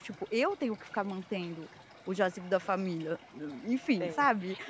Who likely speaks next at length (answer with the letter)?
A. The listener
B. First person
A